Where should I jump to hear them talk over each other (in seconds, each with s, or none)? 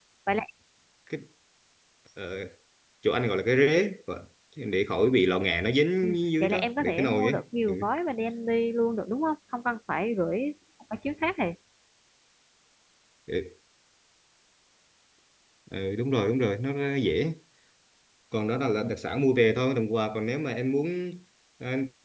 6.0 s